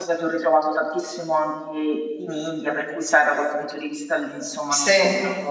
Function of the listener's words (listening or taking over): listening